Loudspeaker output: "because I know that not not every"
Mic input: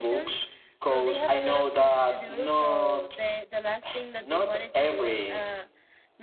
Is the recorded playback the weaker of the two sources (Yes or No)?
No